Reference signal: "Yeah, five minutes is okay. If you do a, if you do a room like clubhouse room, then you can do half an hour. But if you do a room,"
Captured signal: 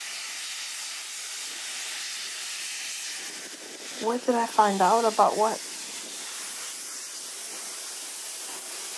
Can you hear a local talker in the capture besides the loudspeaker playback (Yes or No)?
Yes